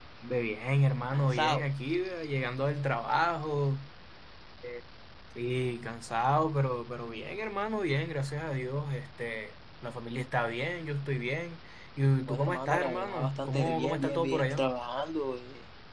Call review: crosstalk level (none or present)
present